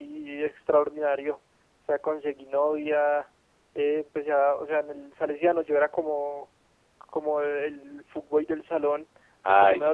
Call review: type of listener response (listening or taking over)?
listening